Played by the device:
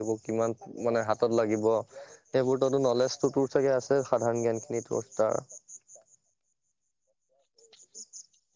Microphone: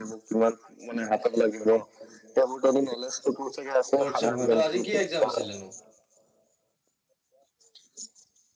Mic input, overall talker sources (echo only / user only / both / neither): both